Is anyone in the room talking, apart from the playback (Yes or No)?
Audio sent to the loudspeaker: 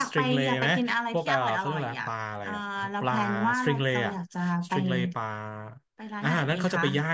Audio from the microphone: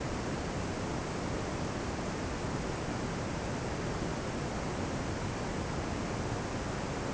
No